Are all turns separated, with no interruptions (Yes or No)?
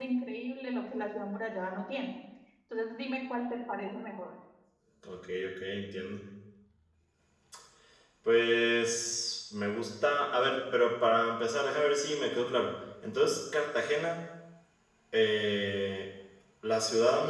Yes